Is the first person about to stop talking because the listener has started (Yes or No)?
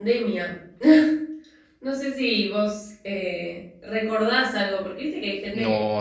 Yes